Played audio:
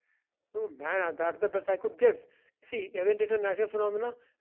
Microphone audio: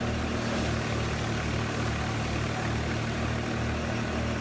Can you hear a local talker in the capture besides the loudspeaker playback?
No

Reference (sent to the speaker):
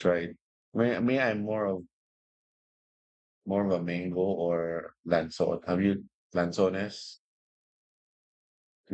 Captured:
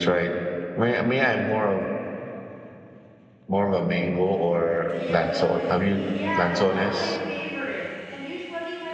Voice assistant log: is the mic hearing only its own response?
No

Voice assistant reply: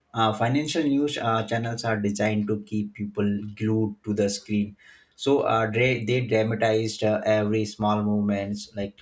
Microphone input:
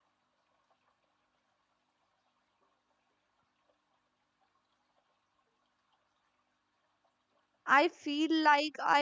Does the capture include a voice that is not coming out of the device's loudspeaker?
Yes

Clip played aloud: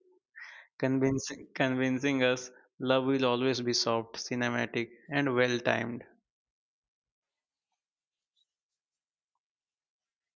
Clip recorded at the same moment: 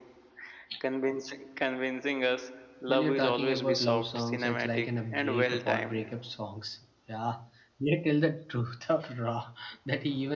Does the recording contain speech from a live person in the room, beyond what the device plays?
Yes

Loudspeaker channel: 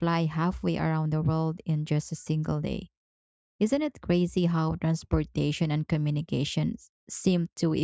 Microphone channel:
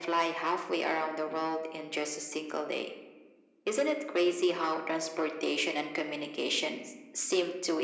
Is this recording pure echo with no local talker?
Yes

